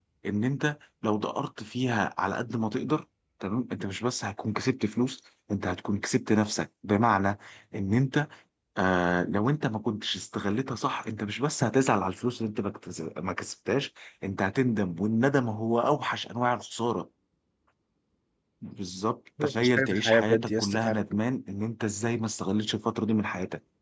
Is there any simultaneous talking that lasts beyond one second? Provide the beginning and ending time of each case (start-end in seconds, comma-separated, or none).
19.4-21.0